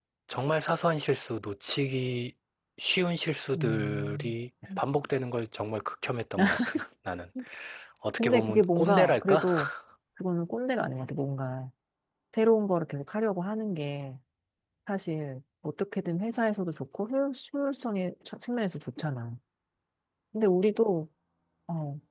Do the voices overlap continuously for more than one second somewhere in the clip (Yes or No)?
Yes